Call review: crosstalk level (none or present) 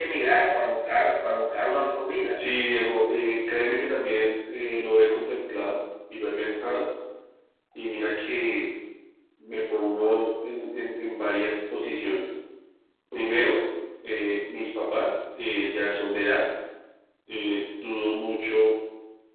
none